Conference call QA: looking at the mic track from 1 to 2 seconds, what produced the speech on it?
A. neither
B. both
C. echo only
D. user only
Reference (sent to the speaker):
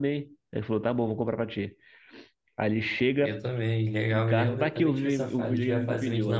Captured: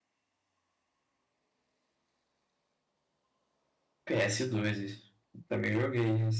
A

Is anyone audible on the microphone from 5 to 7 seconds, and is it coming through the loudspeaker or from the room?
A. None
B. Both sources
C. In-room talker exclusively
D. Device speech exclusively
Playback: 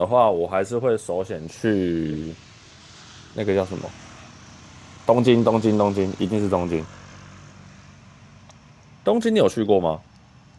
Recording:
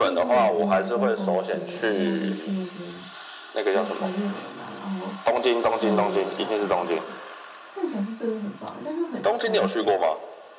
B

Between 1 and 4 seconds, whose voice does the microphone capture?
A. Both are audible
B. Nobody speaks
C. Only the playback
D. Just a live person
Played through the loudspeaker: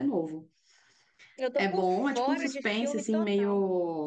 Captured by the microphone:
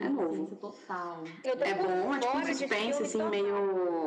A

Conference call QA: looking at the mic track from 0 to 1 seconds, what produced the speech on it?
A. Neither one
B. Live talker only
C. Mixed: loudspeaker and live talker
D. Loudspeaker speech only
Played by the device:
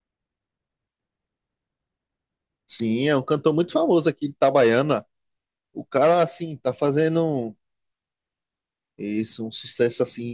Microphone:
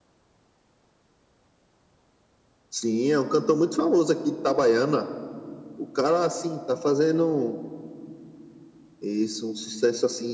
A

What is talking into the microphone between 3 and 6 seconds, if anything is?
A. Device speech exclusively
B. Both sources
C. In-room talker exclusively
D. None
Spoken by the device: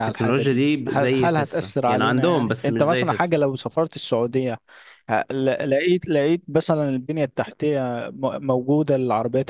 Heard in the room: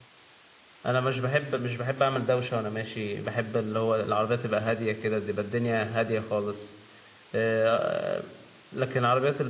C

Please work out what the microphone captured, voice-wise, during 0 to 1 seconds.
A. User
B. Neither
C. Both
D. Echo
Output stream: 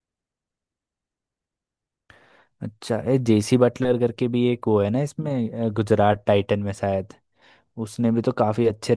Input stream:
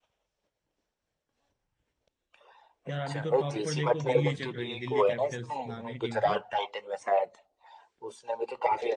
B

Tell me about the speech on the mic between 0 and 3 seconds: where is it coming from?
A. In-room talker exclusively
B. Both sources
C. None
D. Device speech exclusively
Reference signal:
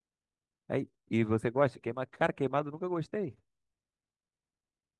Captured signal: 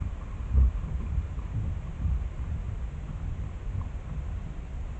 C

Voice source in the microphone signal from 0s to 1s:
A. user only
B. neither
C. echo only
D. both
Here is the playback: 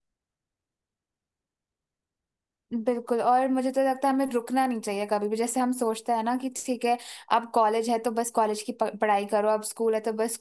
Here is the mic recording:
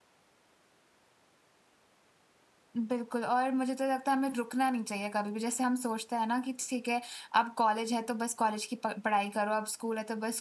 B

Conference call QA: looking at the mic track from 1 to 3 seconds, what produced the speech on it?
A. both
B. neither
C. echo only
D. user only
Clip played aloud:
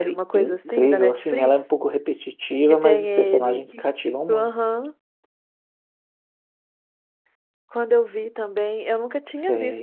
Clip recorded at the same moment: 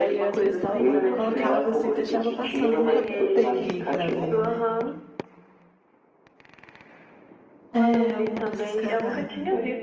A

